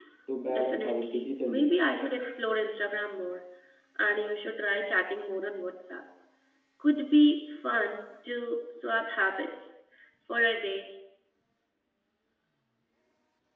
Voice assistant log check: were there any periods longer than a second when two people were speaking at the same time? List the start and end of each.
0.5-1.8

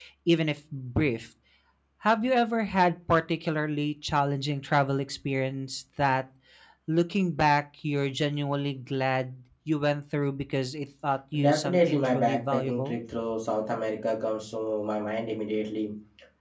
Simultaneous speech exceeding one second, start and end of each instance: 11.4-13.0

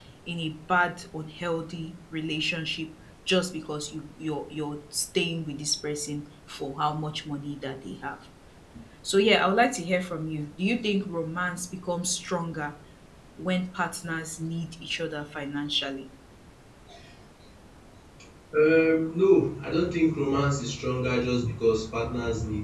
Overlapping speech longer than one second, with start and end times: none

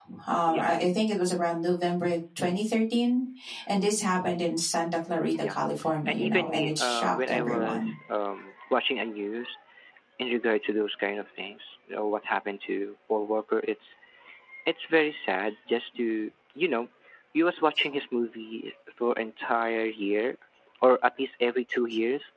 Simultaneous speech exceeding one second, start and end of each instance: 6.1-7.9

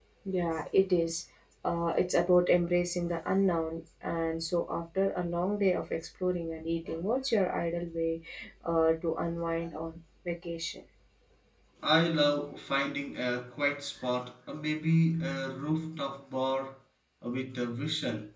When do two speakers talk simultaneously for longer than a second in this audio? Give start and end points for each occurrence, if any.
none

